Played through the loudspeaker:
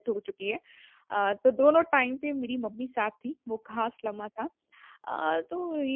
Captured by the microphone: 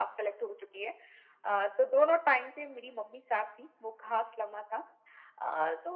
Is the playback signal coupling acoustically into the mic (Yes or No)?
Yes